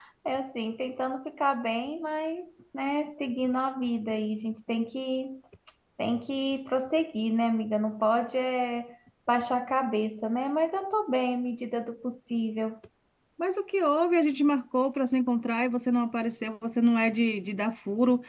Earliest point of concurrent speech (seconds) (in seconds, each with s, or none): none